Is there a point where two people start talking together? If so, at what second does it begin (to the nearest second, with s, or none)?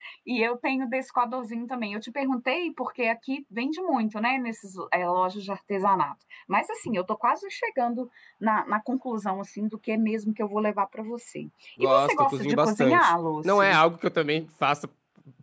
12 s